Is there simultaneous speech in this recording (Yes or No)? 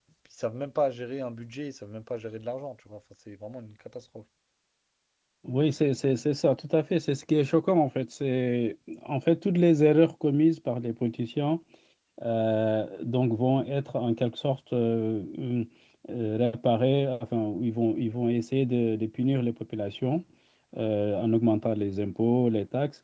No